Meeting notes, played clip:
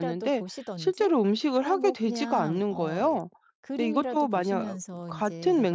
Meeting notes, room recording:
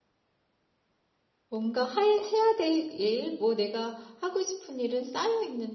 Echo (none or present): none